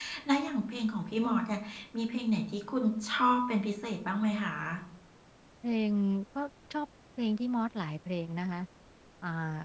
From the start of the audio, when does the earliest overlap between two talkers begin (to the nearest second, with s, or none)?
none